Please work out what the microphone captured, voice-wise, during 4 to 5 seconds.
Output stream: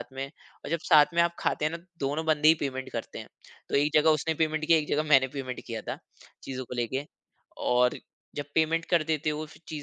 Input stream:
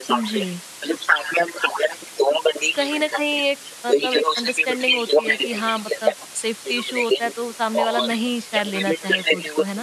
both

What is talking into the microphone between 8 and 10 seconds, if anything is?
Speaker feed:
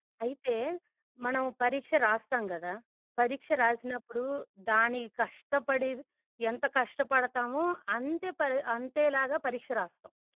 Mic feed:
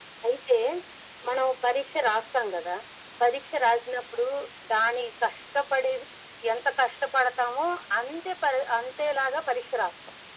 echo only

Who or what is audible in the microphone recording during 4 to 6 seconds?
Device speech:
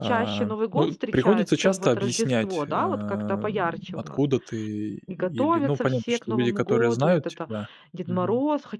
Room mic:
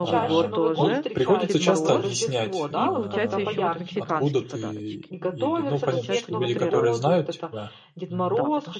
both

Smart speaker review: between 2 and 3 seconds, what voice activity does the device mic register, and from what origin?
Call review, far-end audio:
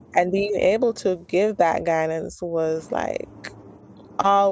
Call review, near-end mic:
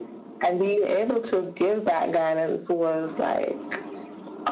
echo only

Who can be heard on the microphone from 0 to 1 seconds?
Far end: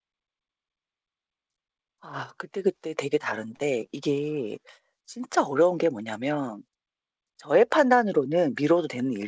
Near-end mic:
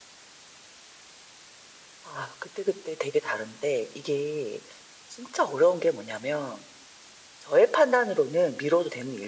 neither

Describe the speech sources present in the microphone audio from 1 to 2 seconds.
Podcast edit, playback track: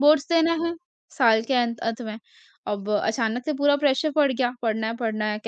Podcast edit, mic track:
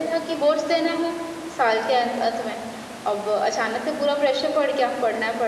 echo only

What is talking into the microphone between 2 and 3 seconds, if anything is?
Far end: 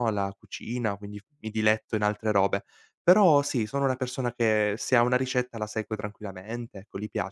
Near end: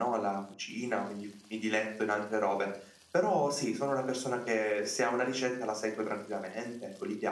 echo only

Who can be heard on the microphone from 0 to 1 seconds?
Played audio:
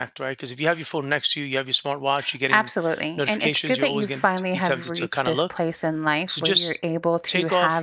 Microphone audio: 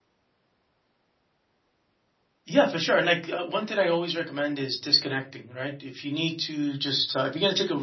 neither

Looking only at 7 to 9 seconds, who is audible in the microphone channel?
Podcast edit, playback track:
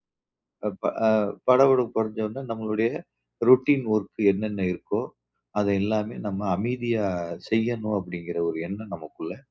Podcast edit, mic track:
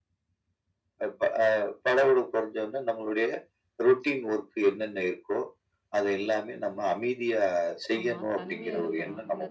both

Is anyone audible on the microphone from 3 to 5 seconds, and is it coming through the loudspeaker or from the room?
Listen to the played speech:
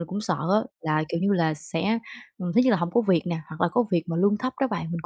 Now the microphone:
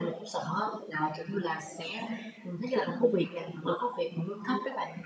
echo only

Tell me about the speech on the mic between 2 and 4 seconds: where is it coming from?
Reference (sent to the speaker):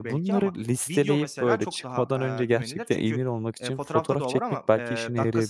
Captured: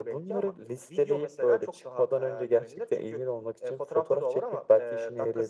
echo only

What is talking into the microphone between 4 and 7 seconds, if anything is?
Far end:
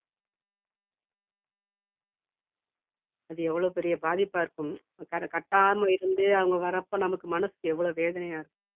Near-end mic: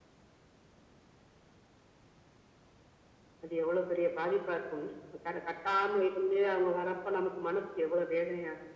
echo only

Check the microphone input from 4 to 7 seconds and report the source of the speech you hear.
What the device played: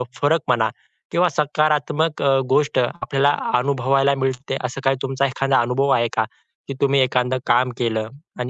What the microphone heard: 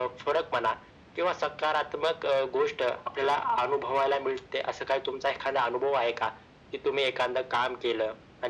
echo only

